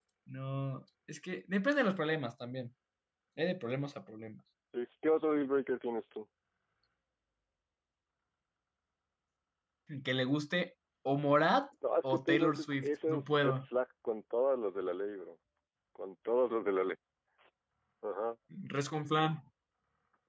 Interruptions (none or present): present